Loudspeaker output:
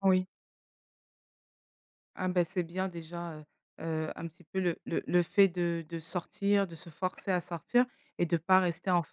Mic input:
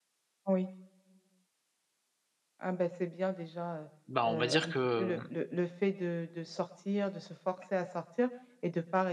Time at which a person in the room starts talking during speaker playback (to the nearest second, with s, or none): 4 s